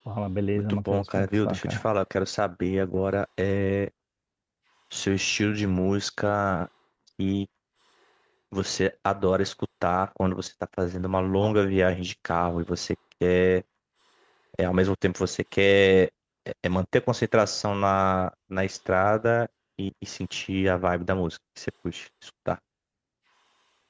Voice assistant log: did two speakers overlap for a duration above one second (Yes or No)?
Yes